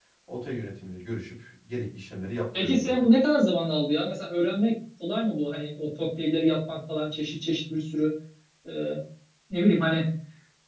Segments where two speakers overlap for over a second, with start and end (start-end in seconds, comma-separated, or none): none